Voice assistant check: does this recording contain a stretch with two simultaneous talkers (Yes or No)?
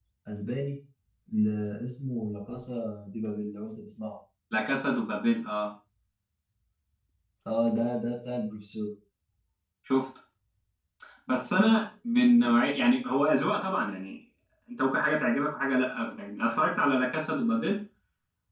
No